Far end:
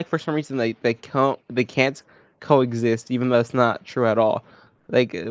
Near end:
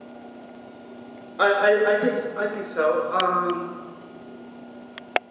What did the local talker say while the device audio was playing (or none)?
I I I think s I think so, um,